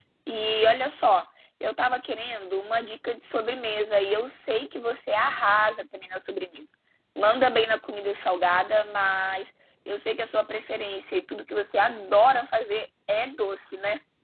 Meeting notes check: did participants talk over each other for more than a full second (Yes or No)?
No